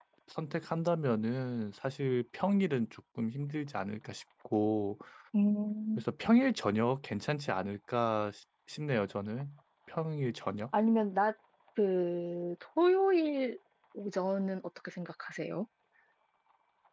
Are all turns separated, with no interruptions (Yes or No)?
Yes